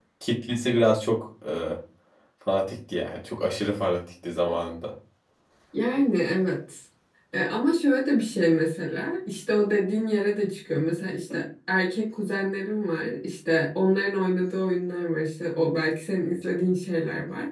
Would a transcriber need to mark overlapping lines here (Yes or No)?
No